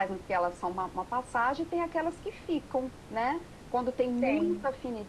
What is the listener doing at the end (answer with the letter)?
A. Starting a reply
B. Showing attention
B